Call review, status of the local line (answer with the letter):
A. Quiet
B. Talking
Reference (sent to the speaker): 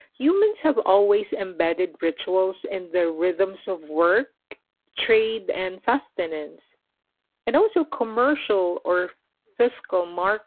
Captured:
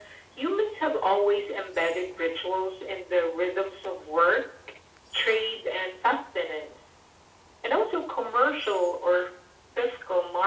A